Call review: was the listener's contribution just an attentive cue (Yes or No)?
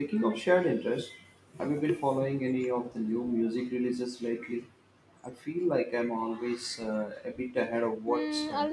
No